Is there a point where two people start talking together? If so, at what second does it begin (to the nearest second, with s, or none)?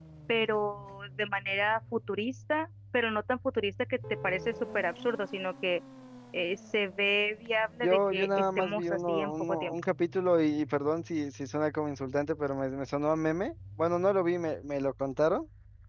8 s